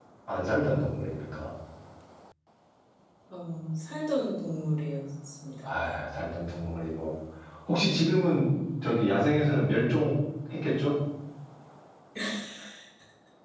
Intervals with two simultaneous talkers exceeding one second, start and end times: none

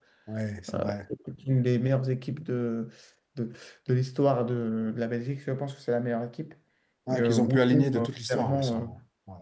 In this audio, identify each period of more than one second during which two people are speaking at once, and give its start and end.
7.1-8.9

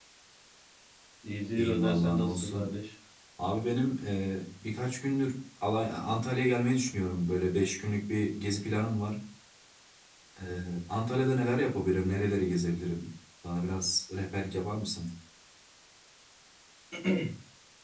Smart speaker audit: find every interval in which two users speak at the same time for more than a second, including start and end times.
1.6-2.8

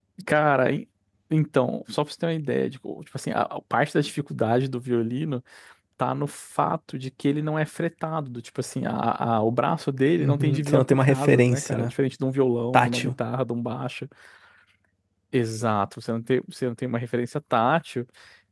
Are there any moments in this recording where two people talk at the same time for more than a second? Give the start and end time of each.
10.2-11.9

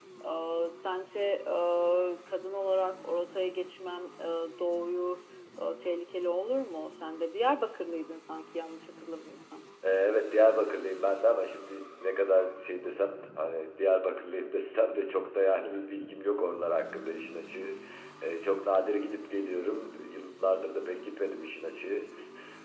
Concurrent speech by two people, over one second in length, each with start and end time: none

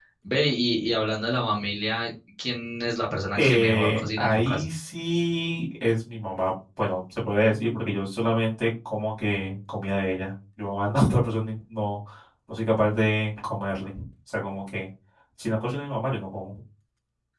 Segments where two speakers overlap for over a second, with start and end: 3.4-4.7

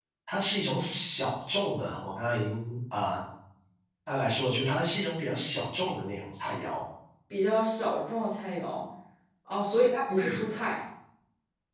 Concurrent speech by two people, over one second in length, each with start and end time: none

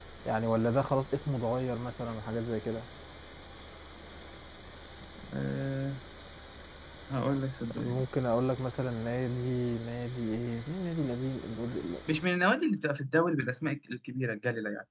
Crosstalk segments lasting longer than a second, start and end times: none

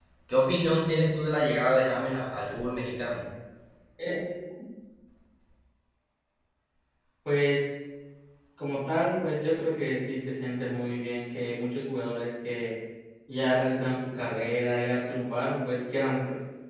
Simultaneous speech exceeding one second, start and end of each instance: none

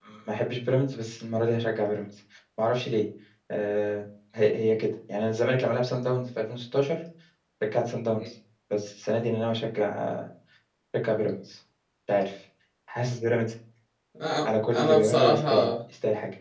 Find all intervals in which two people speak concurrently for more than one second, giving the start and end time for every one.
14.5-15.7

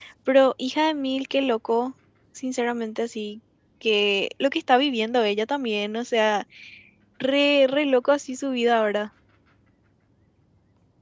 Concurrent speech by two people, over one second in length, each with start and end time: none

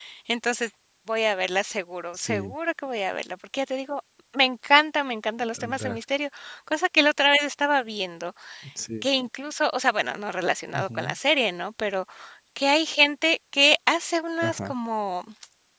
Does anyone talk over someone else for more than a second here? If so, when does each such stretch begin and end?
none

